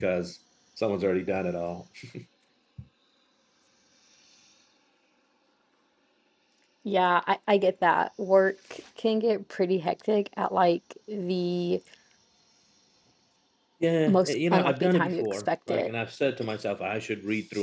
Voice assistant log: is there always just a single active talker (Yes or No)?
No